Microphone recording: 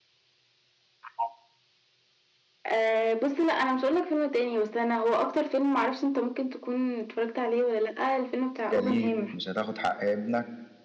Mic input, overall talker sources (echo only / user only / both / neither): both